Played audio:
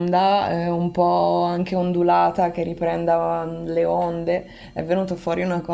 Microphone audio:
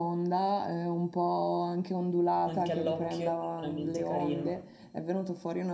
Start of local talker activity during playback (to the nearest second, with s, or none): 2 s